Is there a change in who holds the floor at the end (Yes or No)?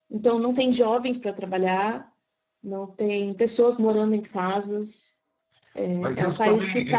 Yes